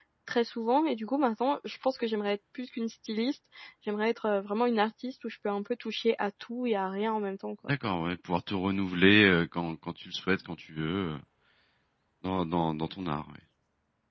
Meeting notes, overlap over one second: none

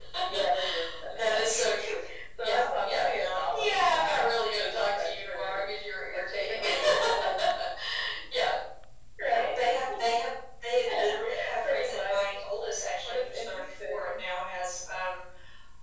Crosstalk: present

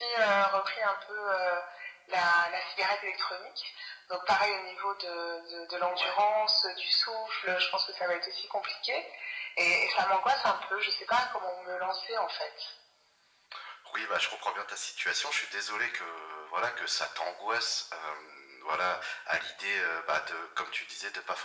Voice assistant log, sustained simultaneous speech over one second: none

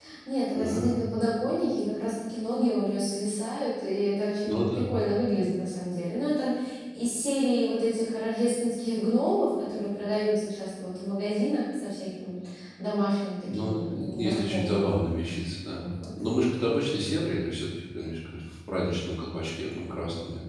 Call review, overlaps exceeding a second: present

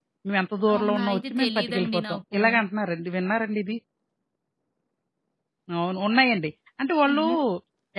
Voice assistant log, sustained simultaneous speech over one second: present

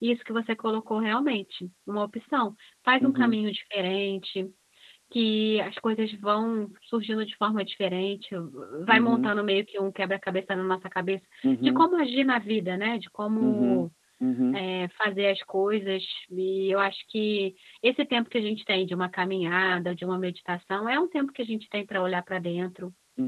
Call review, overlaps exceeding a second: none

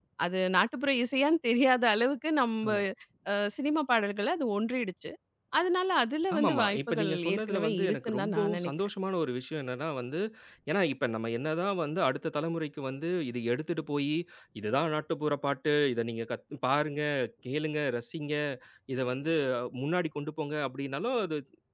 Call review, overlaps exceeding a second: present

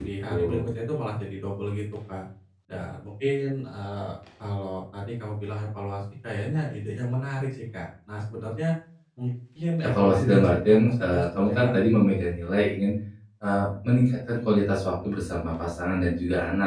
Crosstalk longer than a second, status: present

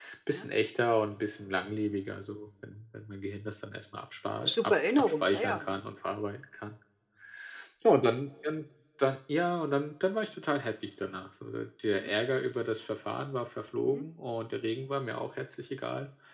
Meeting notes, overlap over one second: present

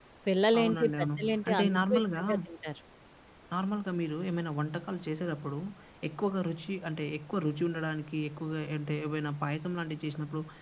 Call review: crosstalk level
present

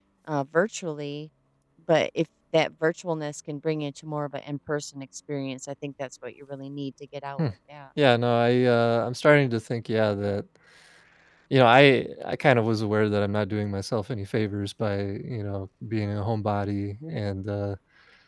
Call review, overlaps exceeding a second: none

